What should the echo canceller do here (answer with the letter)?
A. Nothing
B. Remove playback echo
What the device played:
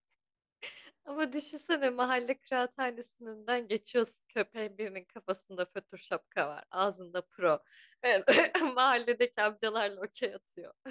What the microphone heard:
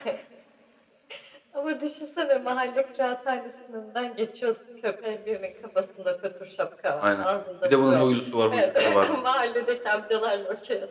B